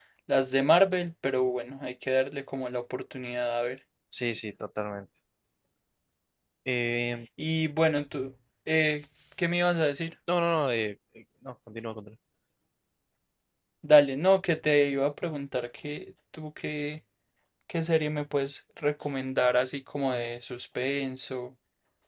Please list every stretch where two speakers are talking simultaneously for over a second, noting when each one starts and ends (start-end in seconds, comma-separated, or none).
none